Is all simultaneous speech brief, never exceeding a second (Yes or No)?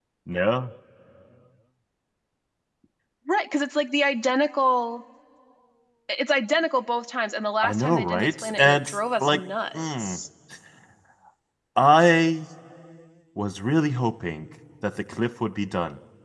No